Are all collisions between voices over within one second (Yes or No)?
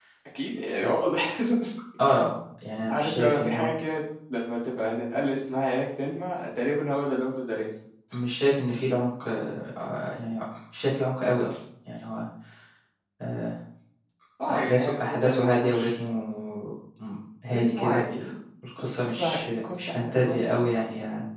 No